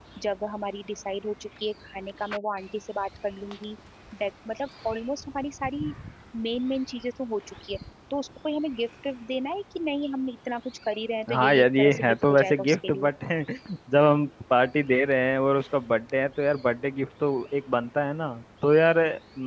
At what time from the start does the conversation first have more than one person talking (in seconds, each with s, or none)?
11.3 s